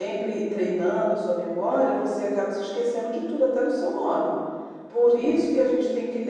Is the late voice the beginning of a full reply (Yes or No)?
No